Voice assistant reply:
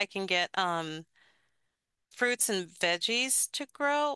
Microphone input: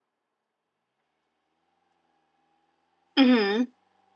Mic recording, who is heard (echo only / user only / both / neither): user only